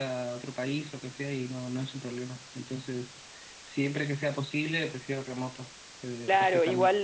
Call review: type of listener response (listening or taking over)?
taking over